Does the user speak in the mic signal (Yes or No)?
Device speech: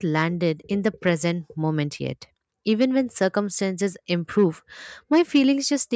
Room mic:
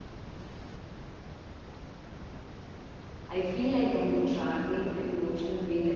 Yes